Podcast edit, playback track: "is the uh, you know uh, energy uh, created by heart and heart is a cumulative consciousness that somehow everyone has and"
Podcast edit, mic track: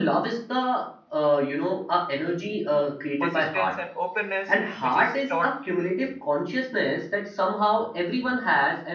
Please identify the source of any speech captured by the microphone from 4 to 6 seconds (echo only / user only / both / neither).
both